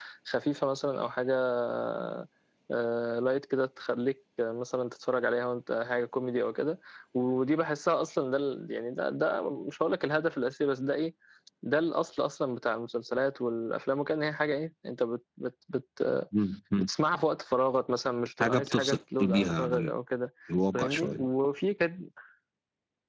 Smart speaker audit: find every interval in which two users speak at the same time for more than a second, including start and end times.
18.4-19.9

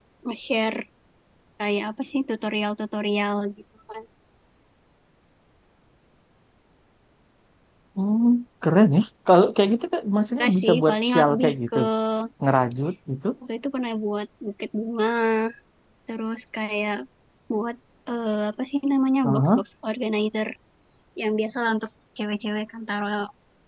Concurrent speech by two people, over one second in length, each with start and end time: 10.4-11.8

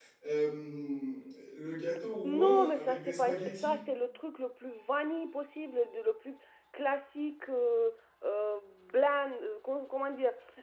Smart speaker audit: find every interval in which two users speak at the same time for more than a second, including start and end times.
2.2-3.8

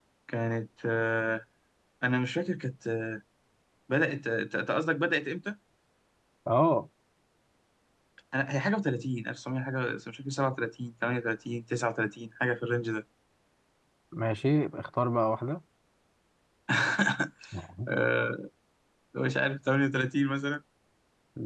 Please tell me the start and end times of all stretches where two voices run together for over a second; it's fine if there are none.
none

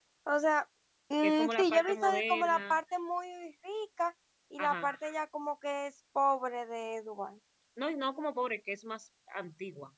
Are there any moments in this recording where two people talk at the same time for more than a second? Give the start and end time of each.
1.2-2.8

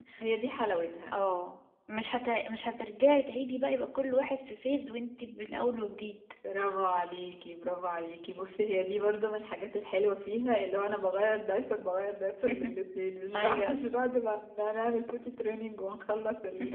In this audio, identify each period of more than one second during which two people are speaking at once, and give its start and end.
none

